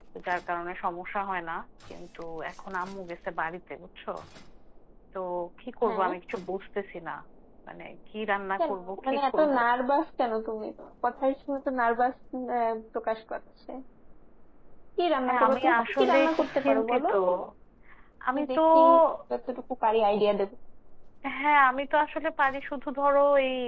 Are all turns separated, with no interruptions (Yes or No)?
No